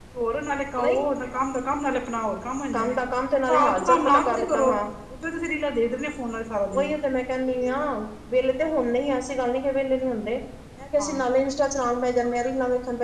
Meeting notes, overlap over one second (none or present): present